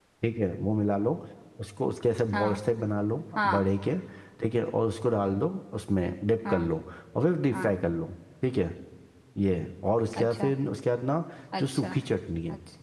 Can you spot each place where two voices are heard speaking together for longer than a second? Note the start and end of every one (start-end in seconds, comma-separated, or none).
none